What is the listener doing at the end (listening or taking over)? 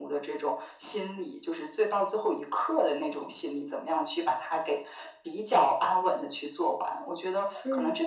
listening